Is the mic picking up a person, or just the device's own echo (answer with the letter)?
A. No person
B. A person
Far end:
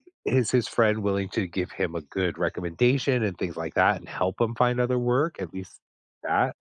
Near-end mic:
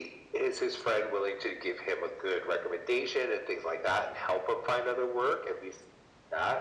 A